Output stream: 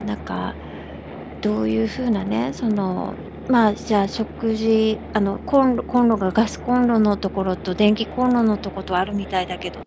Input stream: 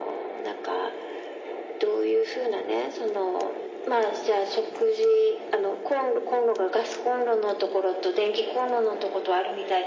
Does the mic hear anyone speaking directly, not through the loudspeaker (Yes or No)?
No